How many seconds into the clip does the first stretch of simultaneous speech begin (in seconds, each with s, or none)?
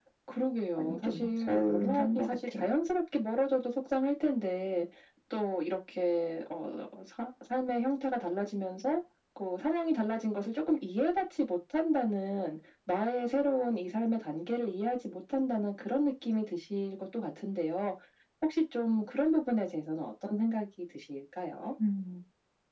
0.8 s